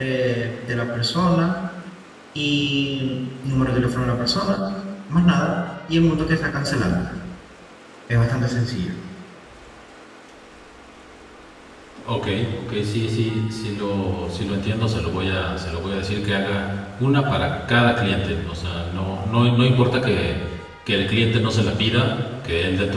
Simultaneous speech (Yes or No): No